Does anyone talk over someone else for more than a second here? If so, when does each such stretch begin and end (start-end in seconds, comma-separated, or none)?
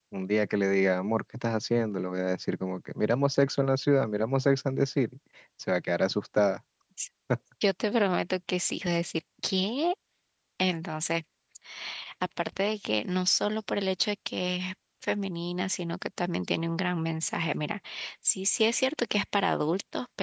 none